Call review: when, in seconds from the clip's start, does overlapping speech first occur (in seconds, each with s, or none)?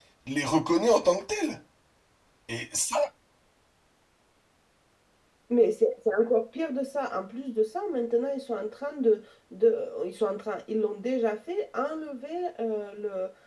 none